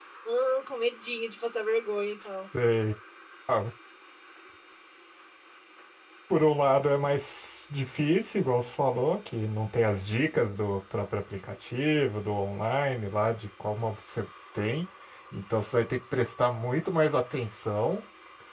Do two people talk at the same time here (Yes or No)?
No